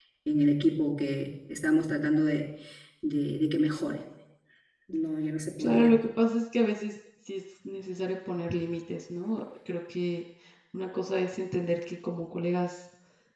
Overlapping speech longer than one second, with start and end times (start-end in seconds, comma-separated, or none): none